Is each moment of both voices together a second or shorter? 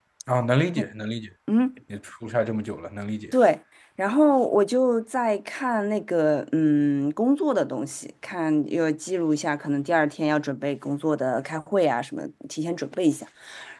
Yes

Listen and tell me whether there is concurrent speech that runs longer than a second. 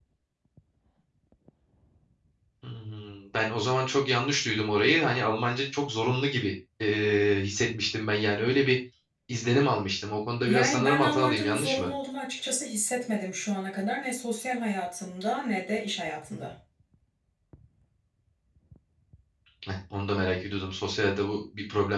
Yes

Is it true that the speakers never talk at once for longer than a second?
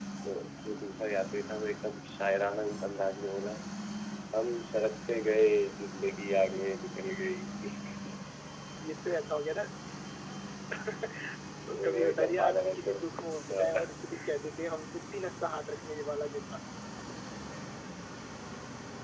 No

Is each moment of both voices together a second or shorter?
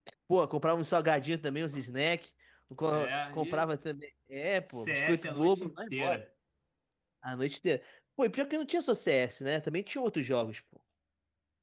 No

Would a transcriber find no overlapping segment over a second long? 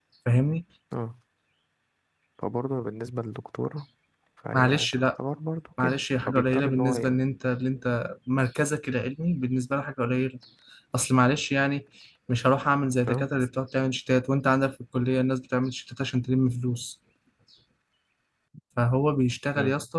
No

